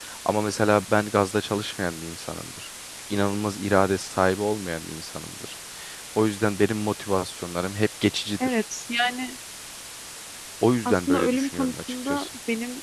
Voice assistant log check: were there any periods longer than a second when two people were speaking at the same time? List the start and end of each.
10.8-12.3

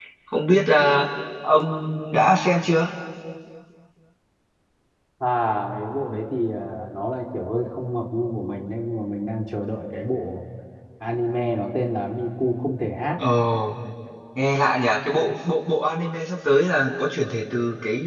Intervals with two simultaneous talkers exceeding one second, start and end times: none

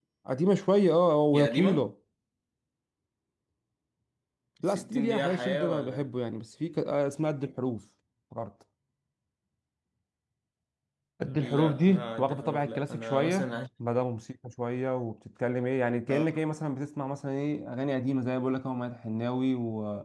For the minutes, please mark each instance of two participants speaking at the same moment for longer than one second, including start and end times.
4.6-6.1, 11.4-13.5

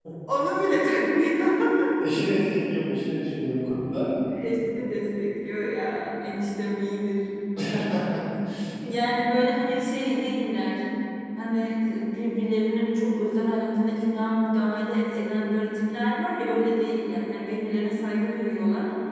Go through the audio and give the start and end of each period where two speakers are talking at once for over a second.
none

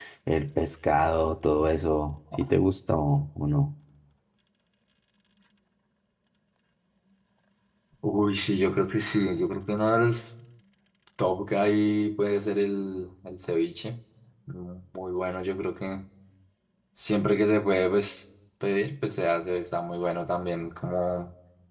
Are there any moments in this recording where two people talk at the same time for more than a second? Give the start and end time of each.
none

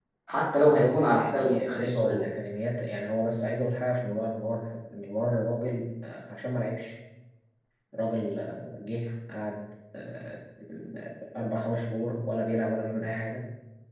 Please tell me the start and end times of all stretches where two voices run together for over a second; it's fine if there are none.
0.7-2.2

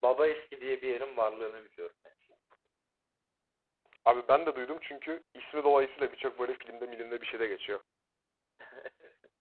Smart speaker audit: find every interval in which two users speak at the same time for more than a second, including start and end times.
none

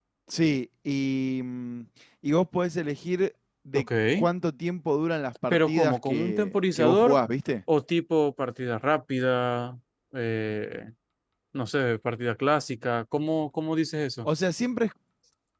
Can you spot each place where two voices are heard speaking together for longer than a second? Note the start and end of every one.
5.5-7.2

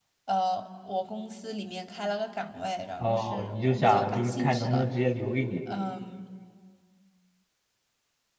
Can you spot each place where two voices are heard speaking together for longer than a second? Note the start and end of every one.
3.0-4.8

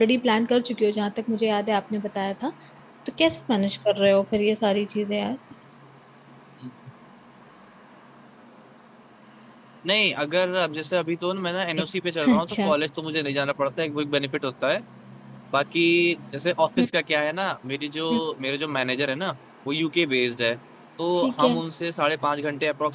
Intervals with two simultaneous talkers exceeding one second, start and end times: none

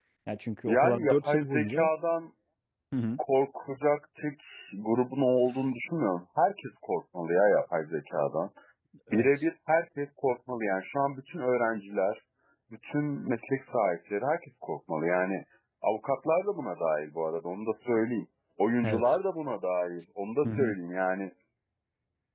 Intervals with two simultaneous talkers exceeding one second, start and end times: 0.7-1.9

